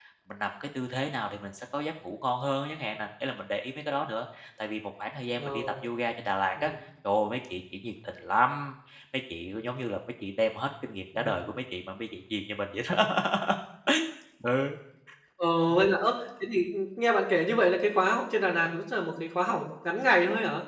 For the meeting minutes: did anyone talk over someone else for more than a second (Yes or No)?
No